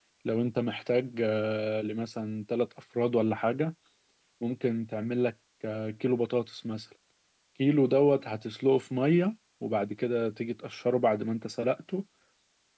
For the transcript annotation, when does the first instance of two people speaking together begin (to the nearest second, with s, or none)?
none